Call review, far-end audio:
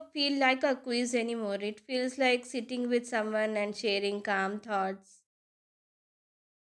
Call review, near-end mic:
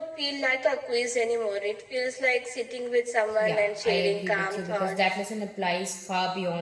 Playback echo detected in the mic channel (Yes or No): Yes